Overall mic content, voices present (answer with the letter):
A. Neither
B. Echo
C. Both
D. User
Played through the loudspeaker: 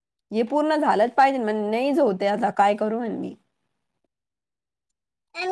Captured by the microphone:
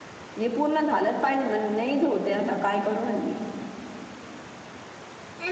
B